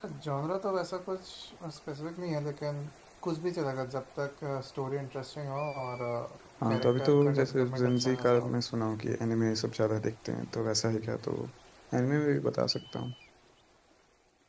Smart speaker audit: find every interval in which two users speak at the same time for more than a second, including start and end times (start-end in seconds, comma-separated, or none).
6.7-8.5